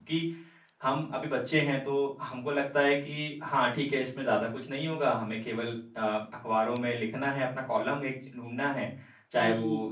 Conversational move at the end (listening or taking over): listening